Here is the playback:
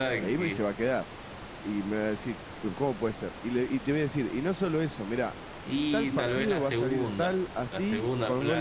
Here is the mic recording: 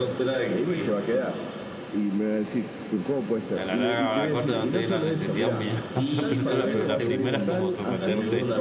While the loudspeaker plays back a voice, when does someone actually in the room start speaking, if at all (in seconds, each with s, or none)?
3.5 s